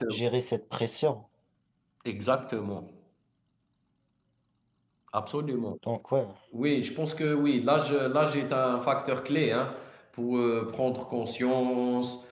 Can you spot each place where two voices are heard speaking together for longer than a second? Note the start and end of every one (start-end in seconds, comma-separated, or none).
none